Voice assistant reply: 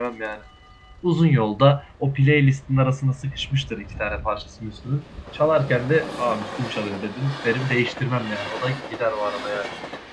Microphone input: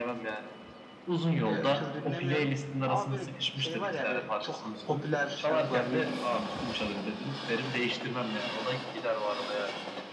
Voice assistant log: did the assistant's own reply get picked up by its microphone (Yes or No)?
Yes